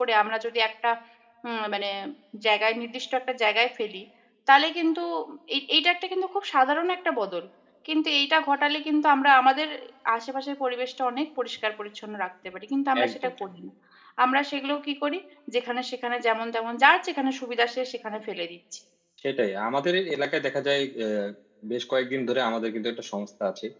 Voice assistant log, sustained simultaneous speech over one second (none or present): none